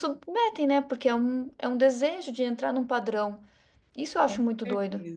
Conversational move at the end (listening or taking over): taking over